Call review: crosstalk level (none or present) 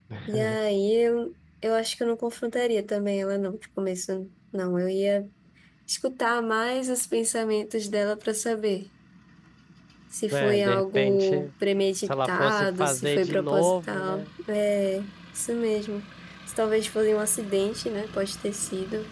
present